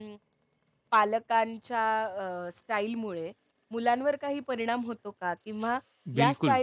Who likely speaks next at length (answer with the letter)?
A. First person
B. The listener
A